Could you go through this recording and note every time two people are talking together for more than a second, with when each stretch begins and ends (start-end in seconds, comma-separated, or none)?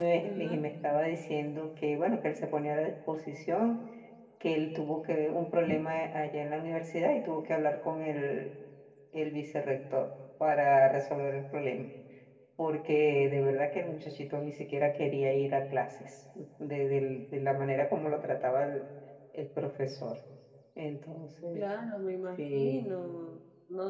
none